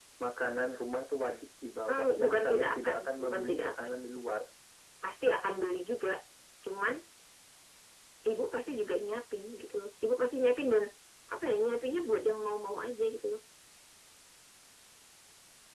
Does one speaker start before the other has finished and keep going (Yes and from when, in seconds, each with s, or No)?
Yes, from 1.9 s